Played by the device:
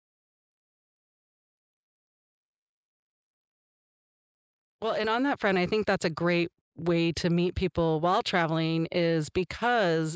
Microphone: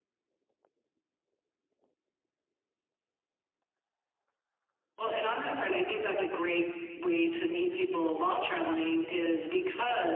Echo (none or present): present